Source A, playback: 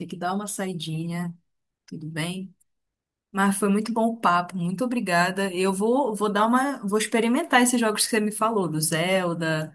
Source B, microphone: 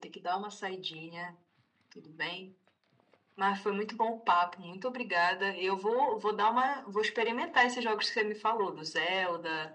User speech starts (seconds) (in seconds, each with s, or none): none